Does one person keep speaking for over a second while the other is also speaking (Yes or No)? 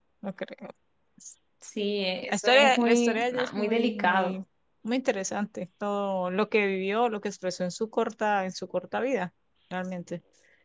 Yes